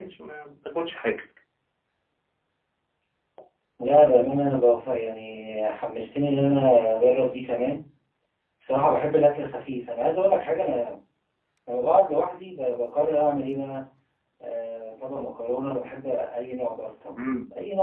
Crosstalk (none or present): none